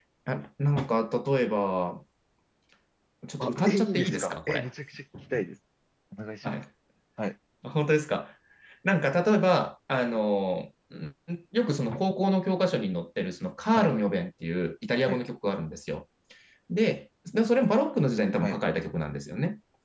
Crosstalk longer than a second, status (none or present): present